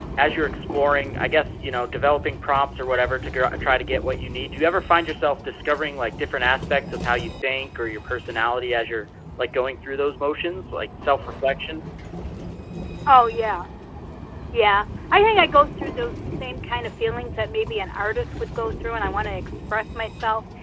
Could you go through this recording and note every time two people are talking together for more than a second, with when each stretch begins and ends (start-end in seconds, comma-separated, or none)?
none